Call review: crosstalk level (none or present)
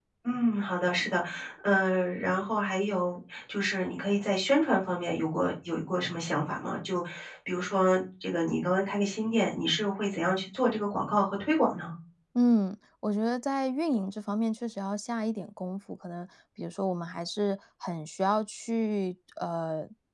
none